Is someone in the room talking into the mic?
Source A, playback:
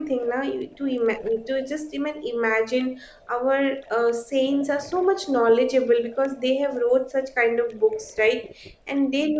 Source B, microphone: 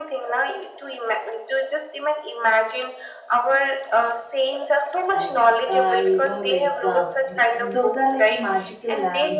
Yes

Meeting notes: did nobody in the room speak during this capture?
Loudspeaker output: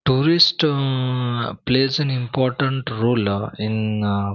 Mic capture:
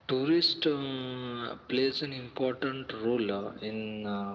Yes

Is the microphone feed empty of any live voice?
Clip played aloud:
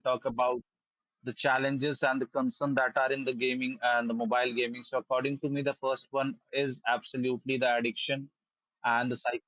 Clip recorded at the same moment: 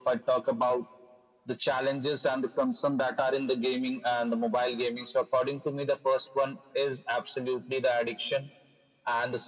Yes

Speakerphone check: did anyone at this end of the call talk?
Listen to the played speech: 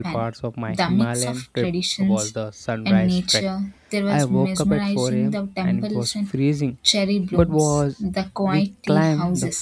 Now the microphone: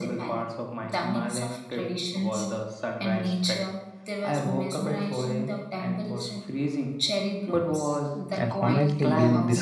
Yes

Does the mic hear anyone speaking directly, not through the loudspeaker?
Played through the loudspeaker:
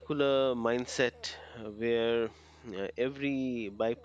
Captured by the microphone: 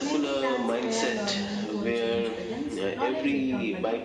Yes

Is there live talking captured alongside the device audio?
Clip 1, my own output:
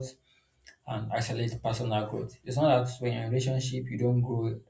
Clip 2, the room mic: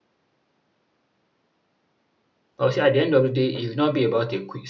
Yes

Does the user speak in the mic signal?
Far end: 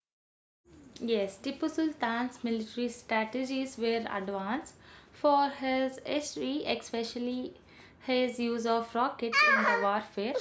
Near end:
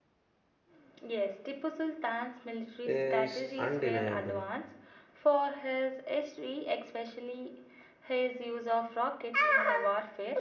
Yes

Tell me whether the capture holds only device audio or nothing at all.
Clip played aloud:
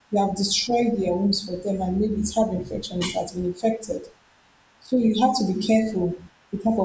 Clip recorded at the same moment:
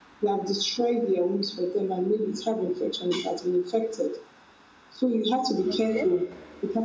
No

